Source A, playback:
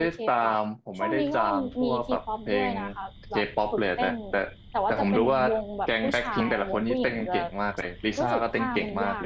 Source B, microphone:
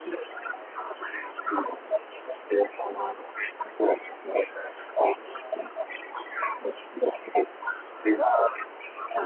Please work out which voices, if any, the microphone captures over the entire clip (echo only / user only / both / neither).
echo only